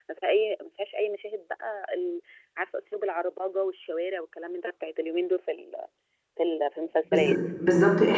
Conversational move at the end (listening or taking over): taking over